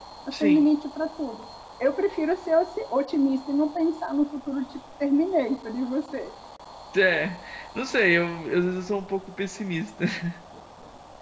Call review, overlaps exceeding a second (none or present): none